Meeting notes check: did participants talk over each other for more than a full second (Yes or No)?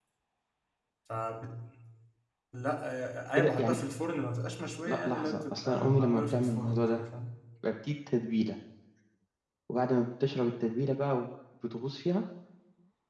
Yes